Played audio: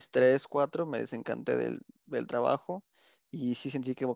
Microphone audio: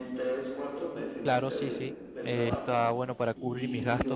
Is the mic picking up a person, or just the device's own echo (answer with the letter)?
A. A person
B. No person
A